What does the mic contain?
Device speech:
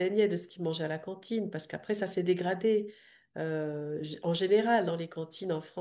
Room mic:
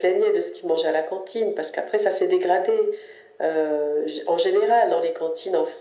echo only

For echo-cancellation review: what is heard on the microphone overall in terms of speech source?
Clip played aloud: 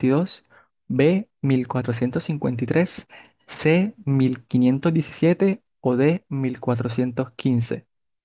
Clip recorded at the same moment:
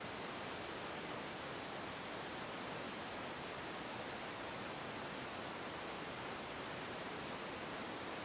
neither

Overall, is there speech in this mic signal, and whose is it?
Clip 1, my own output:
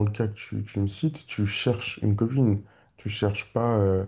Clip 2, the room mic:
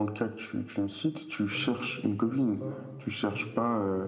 both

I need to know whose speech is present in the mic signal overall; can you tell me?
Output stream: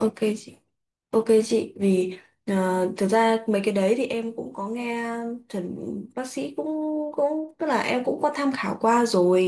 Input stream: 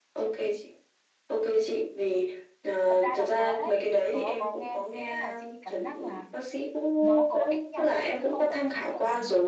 both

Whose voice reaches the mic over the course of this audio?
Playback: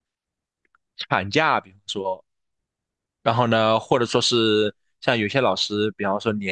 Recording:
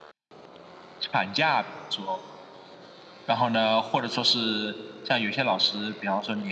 echo only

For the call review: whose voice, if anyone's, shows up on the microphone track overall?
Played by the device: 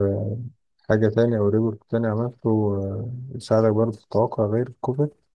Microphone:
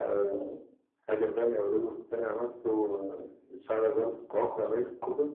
echo only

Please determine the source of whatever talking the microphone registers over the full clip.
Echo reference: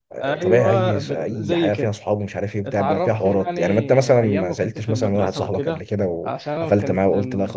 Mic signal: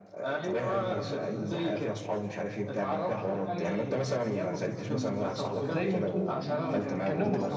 both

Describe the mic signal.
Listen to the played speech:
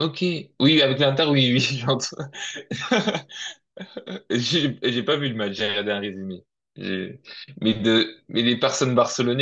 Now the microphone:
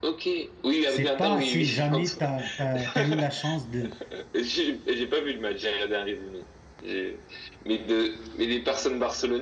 both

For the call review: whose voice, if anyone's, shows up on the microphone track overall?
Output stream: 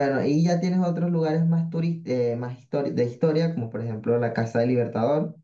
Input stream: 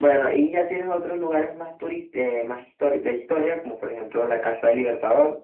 echo only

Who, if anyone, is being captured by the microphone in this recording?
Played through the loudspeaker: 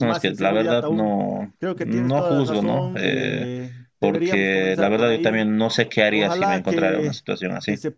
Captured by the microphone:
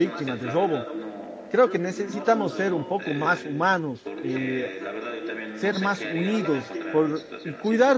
both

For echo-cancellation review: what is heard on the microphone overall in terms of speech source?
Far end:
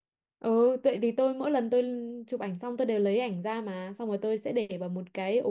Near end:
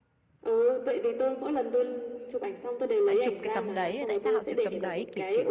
both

